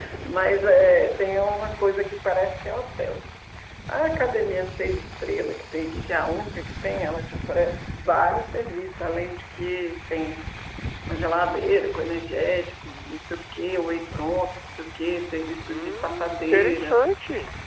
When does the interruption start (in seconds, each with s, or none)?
15.7 s